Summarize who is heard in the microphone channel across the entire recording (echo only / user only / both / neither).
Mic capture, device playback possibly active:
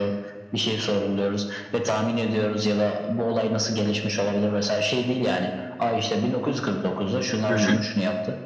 both